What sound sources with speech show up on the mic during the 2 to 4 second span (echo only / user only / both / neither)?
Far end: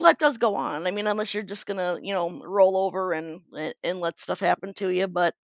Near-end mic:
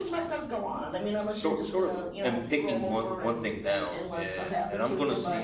both